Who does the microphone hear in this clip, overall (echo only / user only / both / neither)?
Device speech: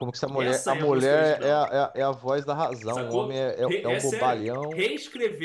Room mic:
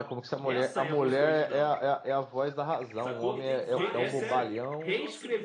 both